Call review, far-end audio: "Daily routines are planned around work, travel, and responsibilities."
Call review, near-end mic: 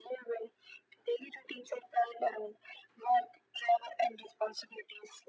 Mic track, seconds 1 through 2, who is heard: echo only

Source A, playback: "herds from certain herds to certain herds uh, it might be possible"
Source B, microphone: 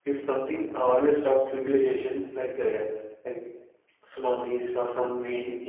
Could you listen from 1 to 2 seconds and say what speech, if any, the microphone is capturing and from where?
user only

